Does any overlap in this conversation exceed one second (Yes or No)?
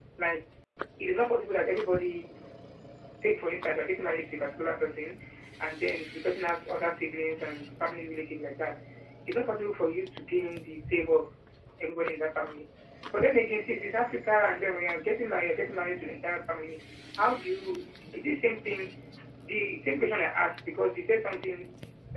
No